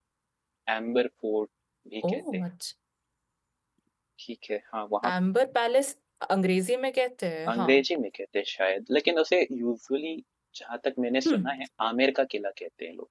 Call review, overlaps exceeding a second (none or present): none